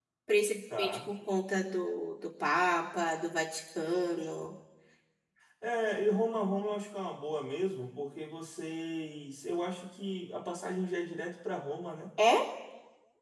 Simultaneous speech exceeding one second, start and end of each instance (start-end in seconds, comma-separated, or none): none